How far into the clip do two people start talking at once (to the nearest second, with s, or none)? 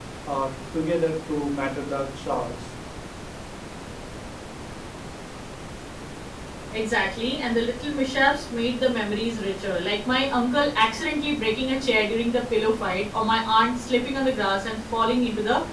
none